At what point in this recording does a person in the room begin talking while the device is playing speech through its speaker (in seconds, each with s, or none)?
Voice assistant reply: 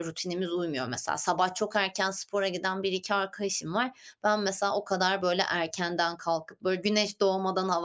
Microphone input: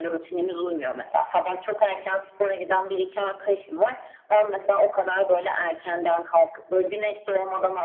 none